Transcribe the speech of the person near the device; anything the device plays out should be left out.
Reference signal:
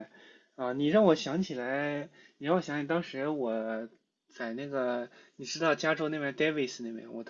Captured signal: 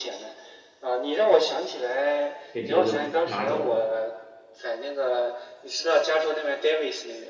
可以直接就拿走了。

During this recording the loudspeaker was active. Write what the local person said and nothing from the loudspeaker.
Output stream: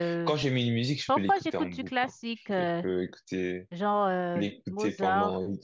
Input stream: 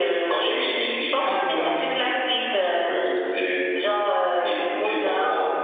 um, euh,

